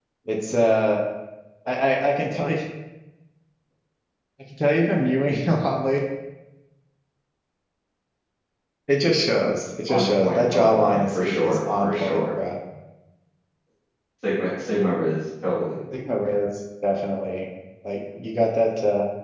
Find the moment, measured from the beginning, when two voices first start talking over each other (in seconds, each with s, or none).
9.9 s